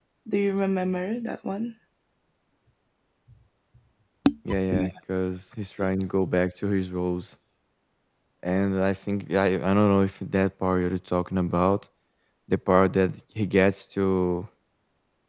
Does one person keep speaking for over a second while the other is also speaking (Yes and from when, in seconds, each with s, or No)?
No